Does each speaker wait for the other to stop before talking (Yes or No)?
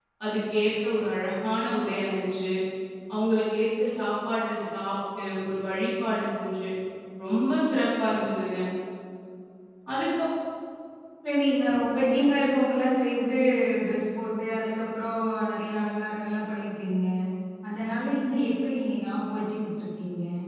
Yes